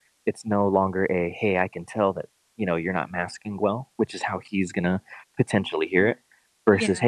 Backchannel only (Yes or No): Yes